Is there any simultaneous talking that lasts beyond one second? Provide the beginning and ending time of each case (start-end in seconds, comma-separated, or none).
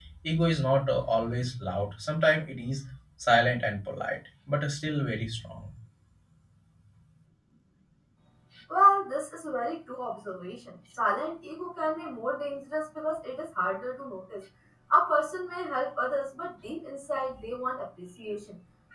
none